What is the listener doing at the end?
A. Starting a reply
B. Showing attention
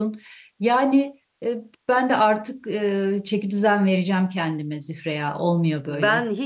A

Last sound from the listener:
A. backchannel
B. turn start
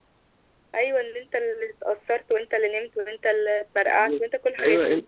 B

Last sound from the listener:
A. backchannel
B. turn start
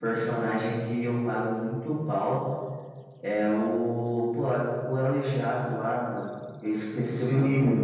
B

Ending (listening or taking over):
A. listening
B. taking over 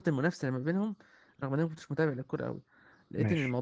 A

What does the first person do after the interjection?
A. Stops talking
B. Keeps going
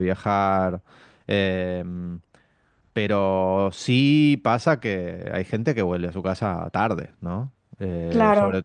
B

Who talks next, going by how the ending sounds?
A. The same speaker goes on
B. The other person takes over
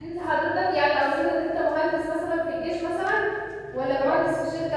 A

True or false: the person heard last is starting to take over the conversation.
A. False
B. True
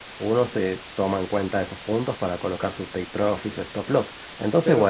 B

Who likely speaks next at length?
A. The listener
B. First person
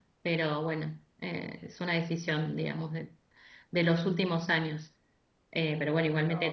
B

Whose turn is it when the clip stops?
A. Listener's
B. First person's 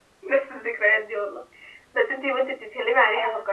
B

